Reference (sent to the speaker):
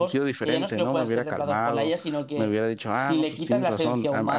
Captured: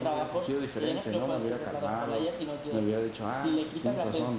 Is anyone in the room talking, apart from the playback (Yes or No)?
No